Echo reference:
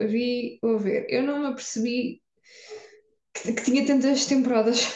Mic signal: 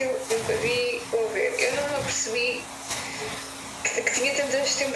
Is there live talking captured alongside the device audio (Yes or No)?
No